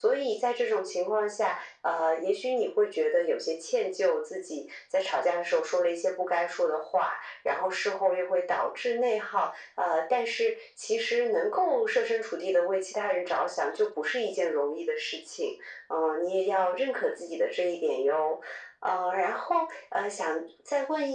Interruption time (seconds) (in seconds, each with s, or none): none